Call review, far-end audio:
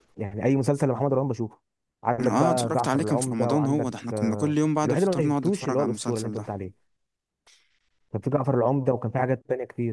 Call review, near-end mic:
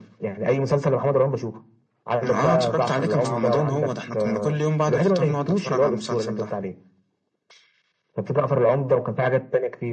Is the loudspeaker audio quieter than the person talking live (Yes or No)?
No